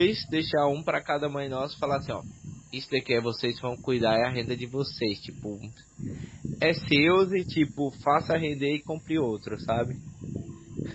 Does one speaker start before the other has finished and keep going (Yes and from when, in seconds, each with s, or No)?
No